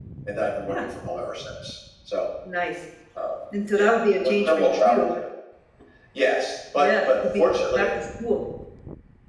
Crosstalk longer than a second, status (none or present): present